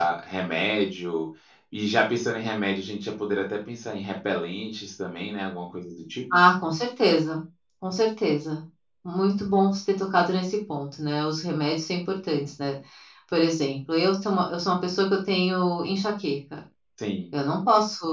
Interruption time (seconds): none

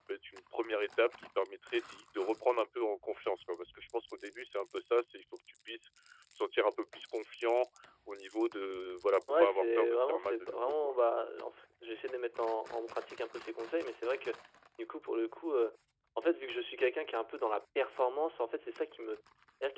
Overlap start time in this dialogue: 9.3 s

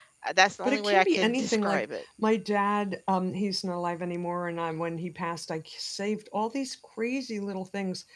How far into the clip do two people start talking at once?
0.6 s

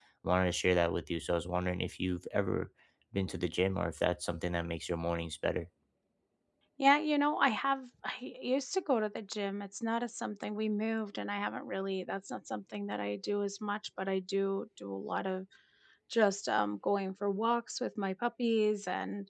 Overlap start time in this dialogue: none

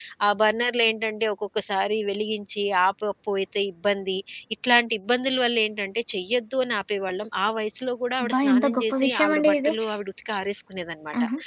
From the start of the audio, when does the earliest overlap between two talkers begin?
8.2 s

